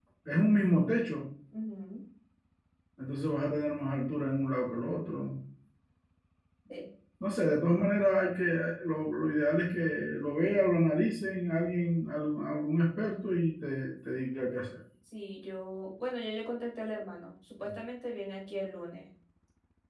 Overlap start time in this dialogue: none

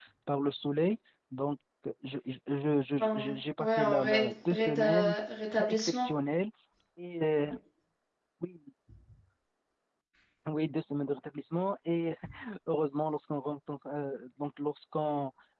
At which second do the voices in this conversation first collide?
3.0 s

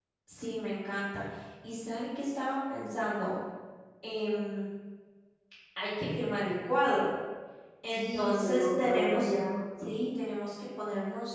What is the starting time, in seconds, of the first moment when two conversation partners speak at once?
8.0 s

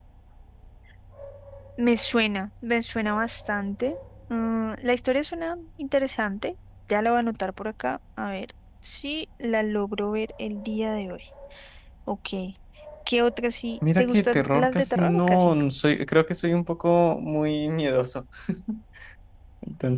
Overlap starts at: 13.8 s

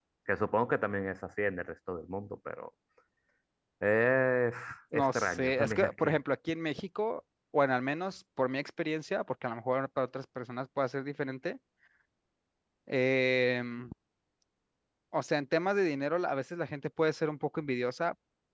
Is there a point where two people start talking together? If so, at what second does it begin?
4.9 s

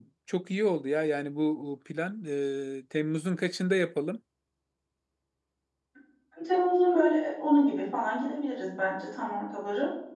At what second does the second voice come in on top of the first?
none

